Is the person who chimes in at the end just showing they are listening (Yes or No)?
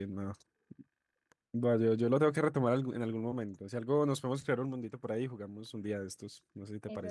No